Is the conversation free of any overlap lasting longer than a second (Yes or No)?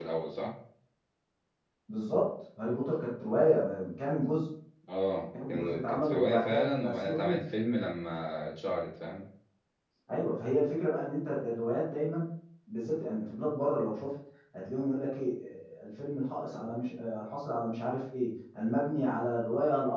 No